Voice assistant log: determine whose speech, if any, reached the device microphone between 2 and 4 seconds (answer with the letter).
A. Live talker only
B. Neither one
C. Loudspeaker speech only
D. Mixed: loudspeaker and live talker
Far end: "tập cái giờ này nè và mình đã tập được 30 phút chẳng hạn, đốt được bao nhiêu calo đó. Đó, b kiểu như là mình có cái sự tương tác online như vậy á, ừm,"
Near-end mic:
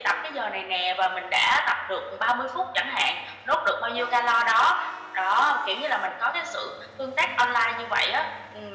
C